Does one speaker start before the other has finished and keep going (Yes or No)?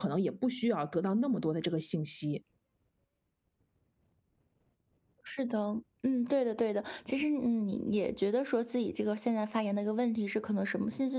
No